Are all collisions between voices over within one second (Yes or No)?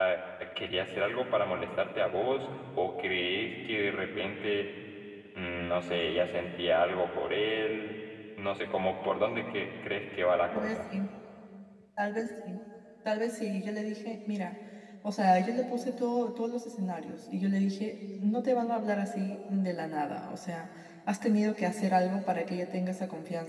Yes